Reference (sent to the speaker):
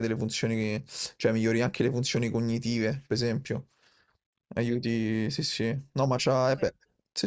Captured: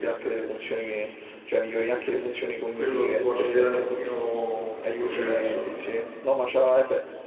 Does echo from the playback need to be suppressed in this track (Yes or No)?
Yes